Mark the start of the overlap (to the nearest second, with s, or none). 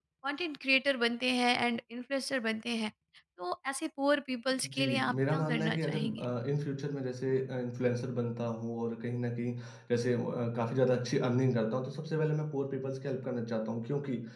5 s